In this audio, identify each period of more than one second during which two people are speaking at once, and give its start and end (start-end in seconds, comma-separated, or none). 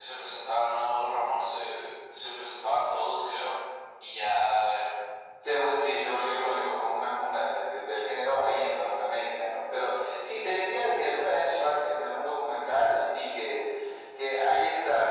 5.5-6.7